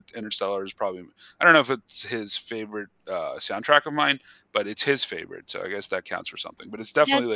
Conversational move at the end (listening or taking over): listening